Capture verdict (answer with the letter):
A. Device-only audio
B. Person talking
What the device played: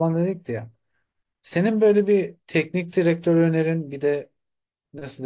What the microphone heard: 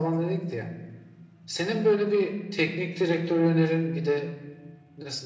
A